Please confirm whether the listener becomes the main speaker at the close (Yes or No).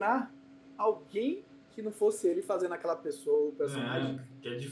Yes